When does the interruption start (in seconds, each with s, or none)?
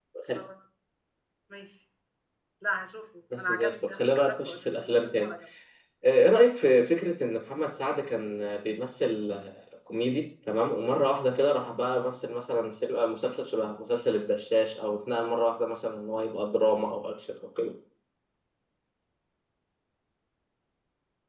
3.4 s